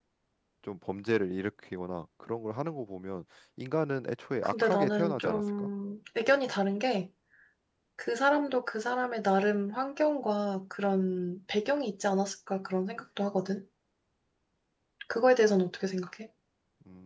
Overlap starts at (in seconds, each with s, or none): 4.4 s